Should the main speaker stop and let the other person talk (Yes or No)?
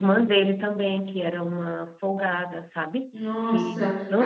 Yes